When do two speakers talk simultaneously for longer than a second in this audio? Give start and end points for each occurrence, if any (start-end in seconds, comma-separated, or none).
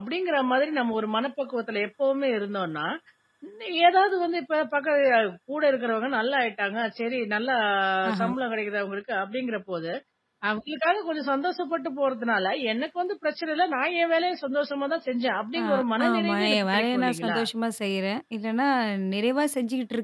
16.1-17.4